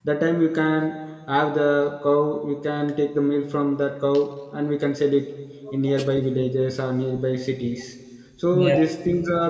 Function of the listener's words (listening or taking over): listening